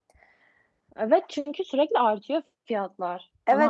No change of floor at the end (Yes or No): No